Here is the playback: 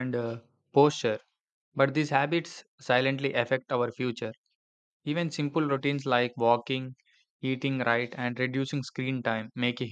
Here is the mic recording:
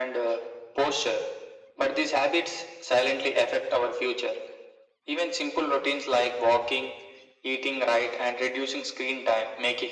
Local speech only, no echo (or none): none